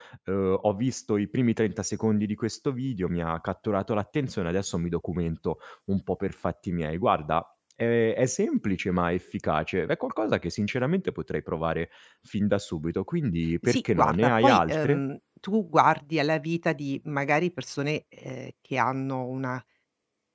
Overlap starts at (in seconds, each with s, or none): 13.6 s